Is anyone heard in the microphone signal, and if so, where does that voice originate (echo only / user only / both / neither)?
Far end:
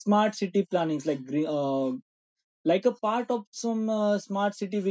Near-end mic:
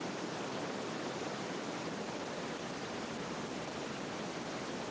neither